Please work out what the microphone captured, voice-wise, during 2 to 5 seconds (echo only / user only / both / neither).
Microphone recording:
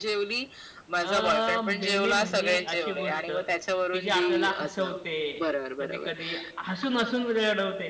both